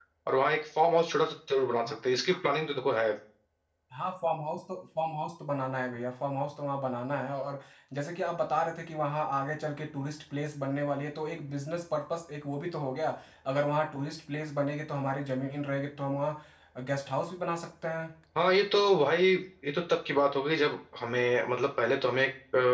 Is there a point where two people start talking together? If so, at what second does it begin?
none

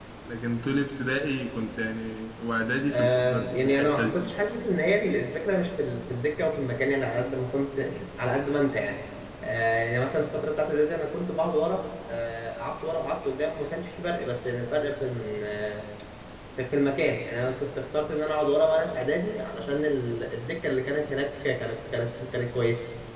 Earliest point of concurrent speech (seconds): 2.9 s

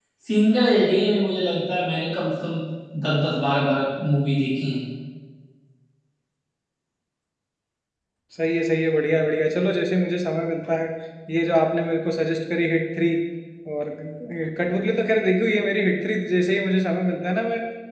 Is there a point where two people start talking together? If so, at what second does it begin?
none

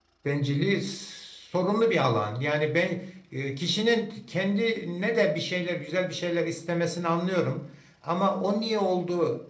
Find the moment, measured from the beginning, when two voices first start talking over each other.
none

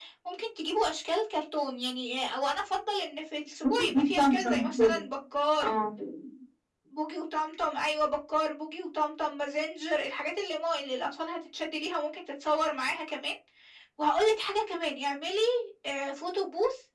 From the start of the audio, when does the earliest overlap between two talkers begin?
3.8 s

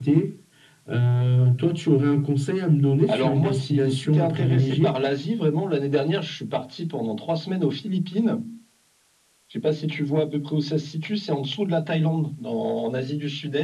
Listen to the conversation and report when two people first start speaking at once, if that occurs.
3.1 s

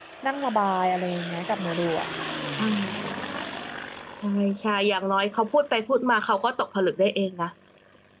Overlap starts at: none

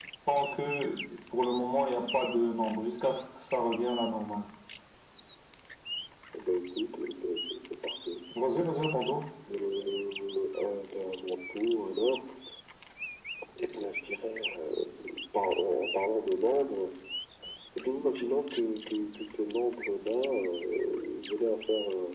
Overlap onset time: none

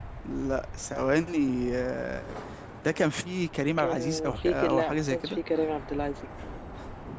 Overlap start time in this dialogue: 3.8 s

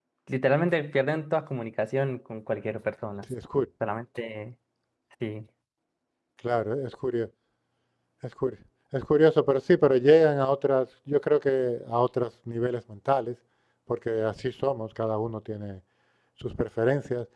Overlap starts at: none

